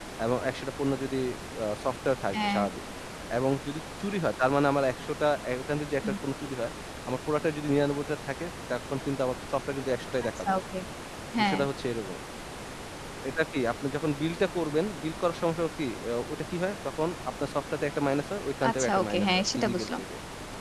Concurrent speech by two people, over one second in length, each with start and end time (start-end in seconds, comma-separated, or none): 18.7-20.0